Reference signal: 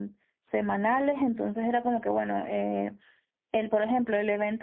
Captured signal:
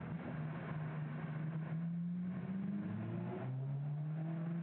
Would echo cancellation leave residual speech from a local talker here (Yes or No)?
No